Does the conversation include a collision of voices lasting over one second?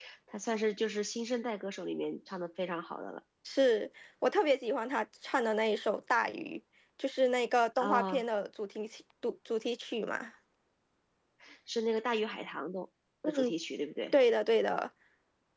No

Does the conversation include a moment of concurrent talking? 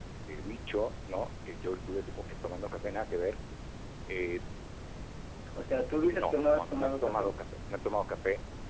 Yes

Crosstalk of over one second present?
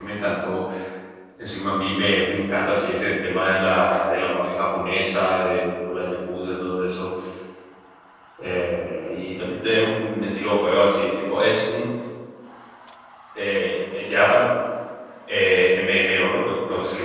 No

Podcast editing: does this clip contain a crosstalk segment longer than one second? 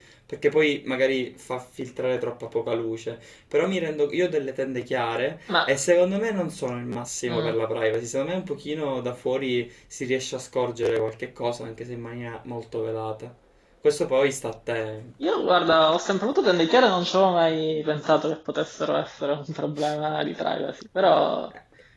No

